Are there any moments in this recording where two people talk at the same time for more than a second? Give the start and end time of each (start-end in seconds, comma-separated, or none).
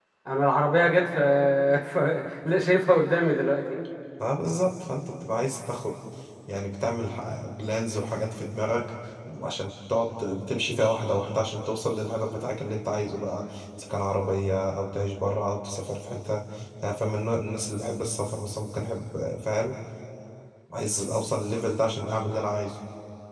none